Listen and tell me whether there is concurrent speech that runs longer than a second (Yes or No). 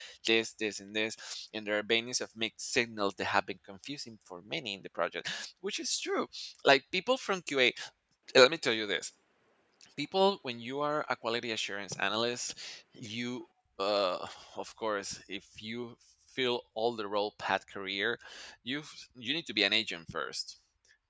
No